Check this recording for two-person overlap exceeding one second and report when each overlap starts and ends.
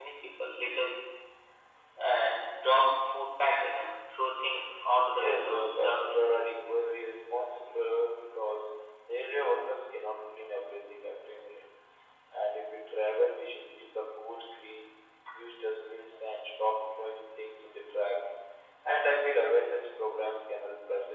5.1-6.4

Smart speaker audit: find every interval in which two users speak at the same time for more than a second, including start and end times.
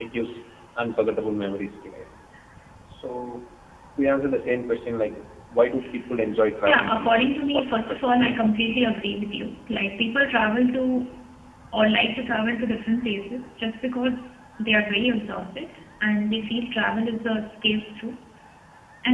6.7-8.5

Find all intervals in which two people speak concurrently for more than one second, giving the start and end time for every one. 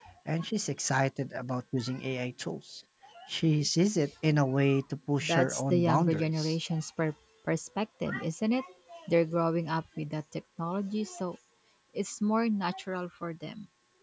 5.2-6.6

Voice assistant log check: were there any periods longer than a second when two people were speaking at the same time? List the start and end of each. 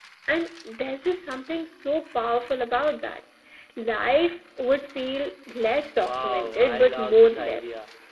6.0-7.6

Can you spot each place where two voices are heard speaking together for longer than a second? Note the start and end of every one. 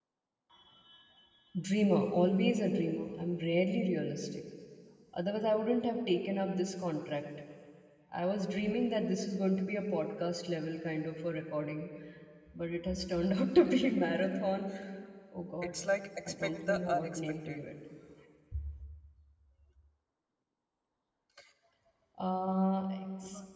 16.3-17.7

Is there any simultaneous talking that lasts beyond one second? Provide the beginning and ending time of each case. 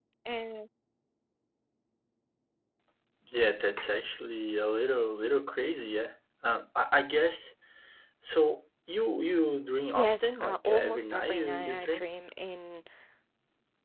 9.9-12.1

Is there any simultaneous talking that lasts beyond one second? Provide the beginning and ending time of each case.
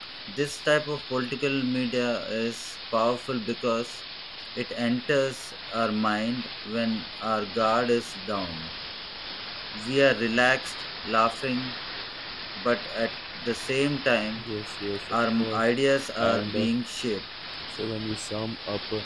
none

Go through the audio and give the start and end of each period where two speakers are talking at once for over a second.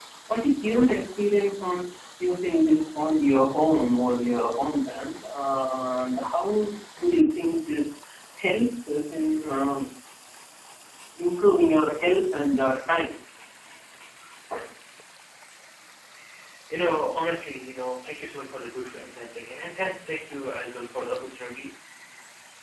none

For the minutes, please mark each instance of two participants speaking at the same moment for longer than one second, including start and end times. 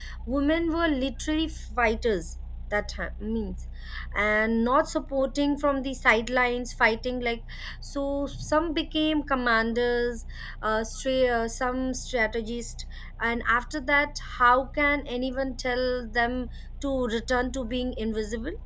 none

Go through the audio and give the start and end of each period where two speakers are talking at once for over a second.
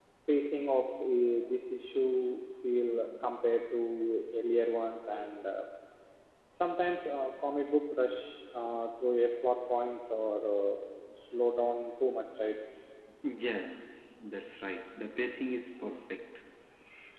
none

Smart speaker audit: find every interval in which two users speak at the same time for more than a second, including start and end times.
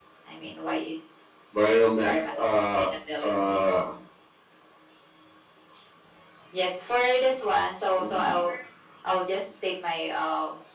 2.0-3.6

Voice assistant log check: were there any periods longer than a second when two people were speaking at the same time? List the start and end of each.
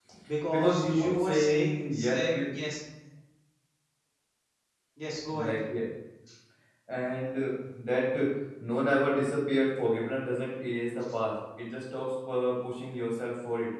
0.5-2.5

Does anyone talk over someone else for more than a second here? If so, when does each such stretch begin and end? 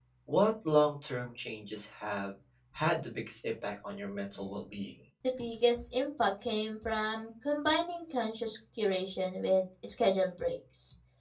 none

